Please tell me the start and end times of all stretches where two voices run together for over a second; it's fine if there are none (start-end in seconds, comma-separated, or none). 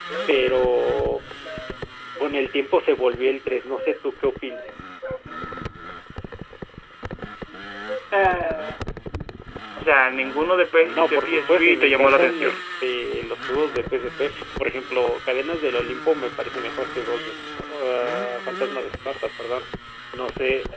10.9-12.6